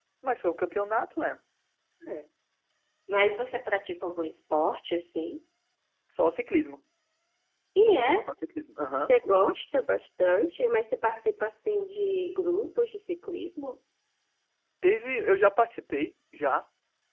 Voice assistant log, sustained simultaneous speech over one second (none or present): none